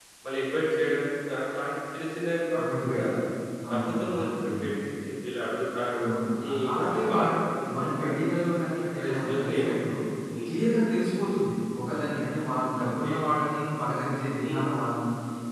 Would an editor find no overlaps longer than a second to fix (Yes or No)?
No